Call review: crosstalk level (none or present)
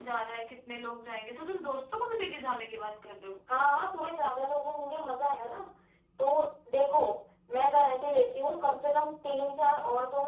none